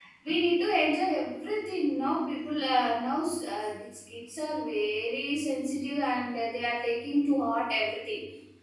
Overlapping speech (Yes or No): No